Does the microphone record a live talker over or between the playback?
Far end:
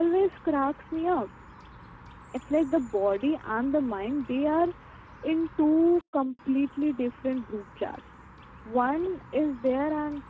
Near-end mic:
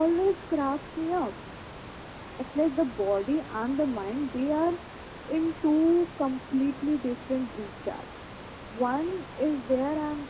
No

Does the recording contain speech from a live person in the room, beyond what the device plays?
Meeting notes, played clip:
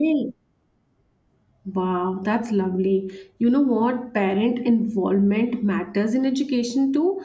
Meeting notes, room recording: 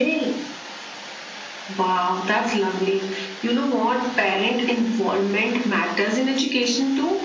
No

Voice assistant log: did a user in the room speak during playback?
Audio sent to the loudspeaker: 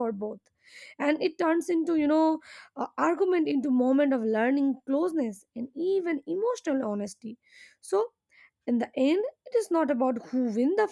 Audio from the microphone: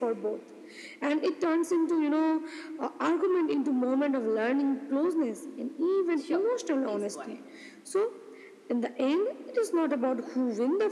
Yes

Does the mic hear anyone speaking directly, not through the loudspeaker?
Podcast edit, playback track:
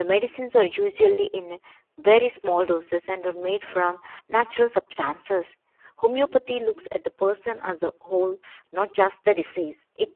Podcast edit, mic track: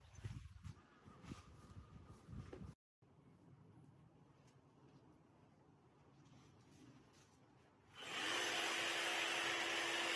No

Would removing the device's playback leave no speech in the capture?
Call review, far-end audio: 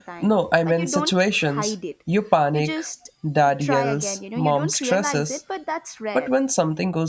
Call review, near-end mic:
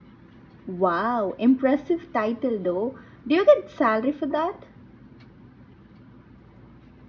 No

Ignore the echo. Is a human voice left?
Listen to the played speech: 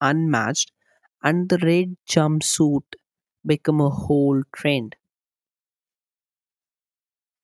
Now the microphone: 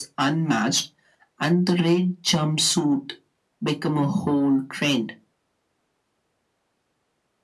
No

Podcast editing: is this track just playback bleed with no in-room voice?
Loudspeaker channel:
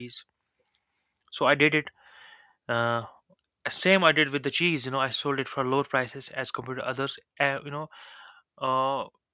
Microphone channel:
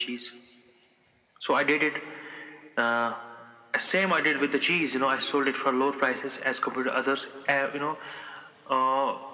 Yes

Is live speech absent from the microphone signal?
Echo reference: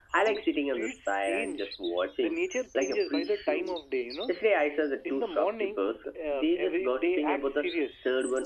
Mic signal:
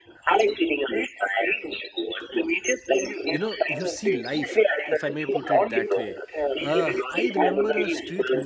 No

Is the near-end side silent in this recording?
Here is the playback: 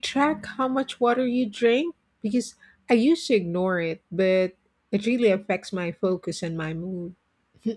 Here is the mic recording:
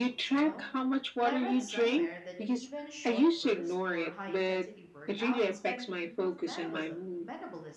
No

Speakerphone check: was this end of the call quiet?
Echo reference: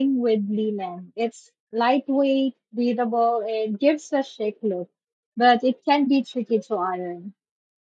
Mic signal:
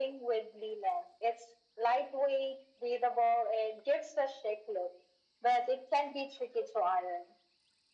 Yes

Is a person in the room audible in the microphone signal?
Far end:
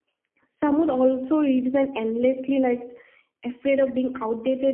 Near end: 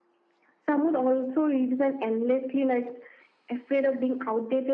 No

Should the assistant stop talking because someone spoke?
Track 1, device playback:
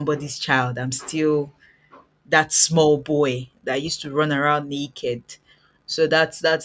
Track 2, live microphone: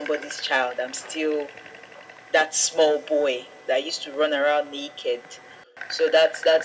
No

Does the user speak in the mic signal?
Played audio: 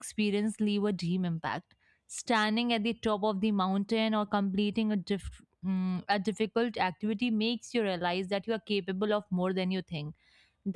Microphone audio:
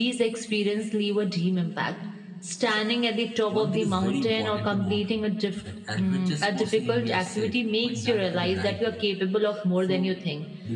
Yes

